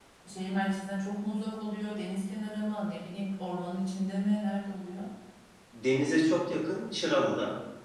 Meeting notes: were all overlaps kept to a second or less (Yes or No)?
Yes